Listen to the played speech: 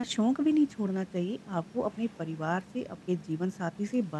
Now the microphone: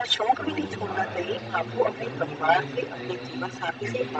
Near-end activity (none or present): present